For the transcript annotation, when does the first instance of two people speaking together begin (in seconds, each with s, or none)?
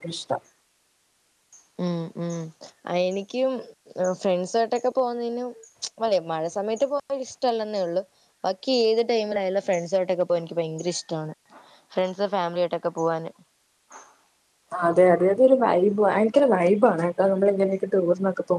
none